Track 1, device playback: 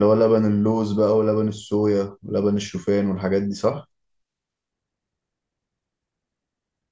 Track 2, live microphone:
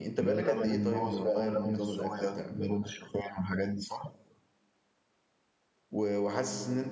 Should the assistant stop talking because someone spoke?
Yes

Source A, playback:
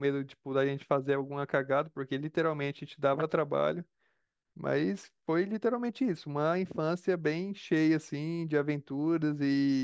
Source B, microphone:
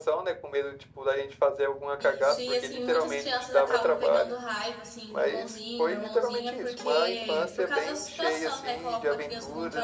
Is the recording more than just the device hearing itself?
Yes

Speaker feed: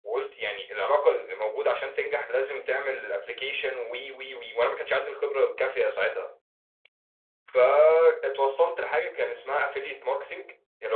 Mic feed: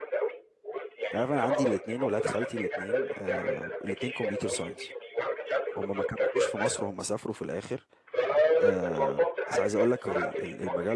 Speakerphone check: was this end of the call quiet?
No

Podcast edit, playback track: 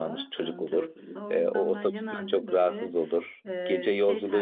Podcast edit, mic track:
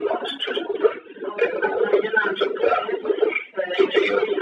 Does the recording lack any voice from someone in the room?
Yes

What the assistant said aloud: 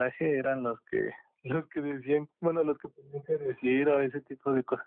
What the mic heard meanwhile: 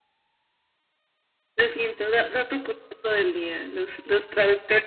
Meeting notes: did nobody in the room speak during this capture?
No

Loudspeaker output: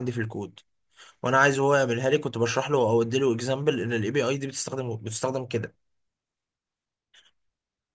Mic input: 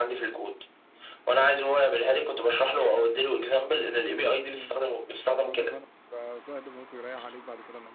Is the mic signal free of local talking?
No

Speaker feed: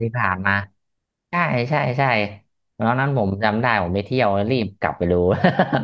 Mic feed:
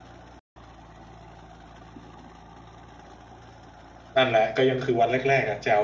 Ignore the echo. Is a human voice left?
Yes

